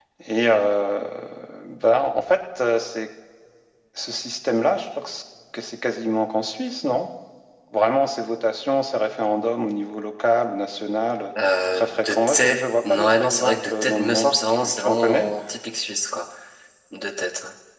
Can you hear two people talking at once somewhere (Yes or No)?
Yes